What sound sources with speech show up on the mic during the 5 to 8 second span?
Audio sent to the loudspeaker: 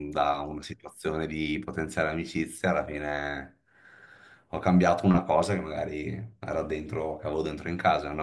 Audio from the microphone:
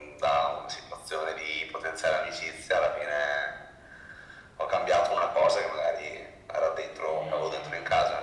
both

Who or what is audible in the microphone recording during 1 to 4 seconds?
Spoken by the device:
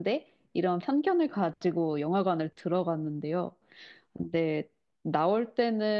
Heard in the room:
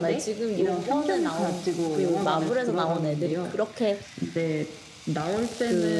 both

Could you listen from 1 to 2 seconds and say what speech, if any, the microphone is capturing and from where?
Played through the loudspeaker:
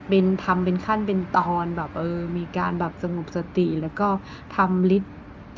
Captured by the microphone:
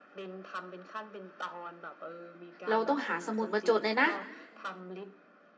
echo only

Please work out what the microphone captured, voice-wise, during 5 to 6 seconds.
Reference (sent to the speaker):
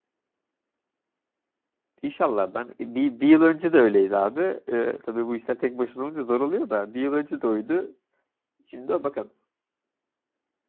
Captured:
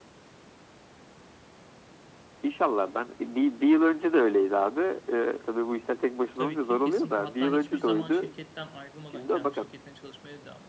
echo only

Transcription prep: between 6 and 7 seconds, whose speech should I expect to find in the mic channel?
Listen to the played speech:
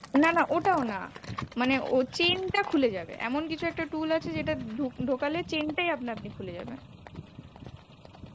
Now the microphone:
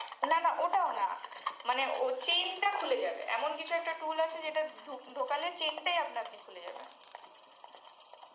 echo only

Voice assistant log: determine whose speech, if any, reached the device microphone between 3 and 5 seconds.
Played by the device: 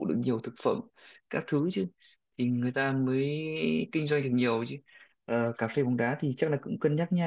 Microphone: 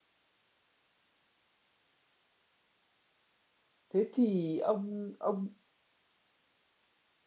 user only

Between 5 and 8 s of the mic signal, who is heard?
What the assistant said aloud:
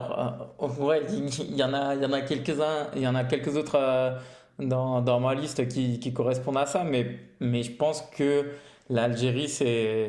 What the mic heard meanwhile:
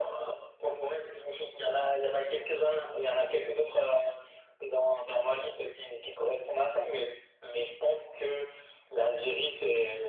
echo only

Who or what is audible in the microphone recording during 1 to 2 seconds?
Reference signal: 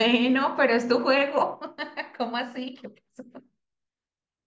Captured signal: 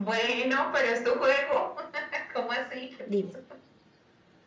echo only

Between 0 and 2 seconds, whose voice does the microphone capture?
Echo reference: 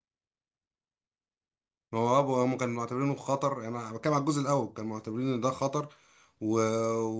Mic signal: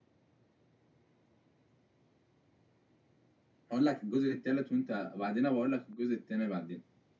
neither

